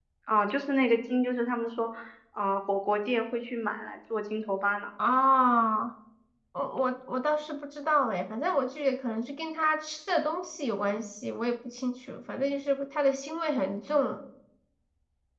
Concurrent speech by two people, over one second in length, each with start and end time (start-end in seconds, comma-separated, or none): none